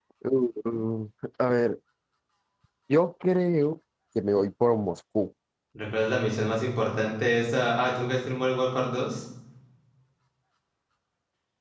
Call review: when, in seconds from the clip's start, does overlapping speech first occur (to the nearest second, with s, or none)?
none